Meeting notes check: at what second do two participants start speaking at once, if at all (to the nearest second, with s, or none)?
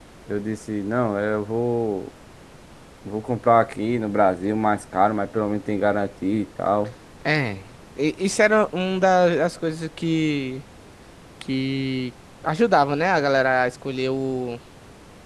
none